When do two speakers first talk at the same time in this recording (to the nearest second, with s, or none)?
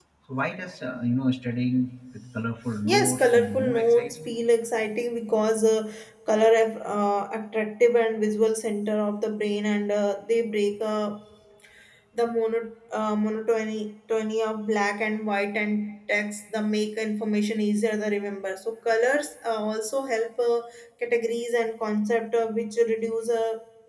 3 s